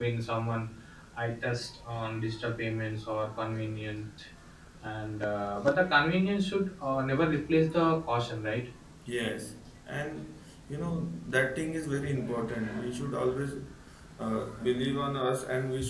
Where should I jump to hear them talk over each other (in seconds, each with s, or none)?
none